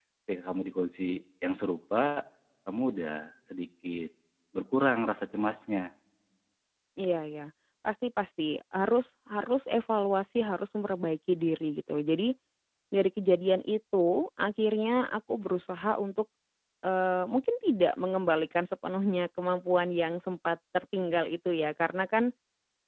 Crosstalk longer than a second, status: none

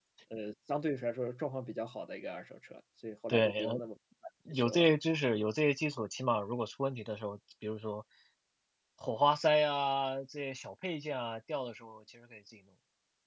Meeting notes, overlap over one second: none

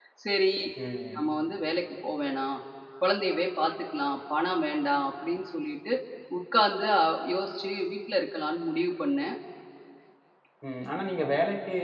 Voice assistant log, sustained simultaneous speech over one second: none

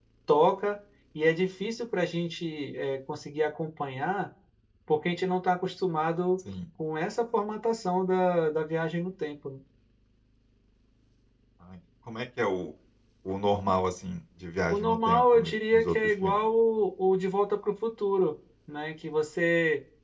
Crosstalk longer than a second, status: present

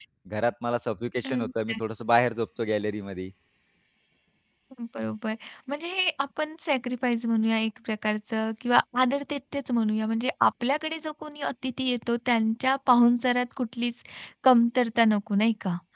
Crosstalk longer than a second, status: none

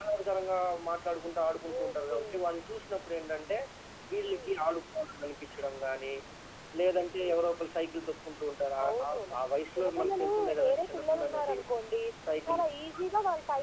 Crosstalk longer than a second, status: present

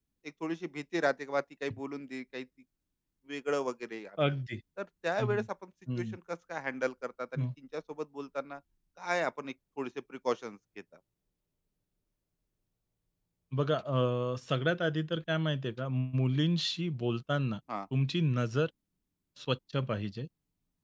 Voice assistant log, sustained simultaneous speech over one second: none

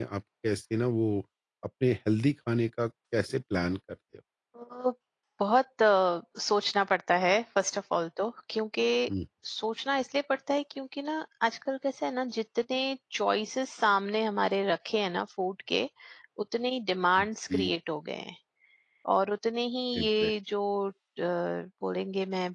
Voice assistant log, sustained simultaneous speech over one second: none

